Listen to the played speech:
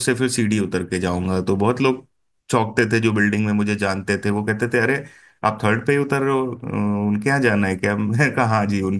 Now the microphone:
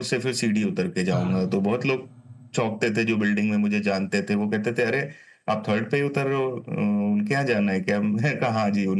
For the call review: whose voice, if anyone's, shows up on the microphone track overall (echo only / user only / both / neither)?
both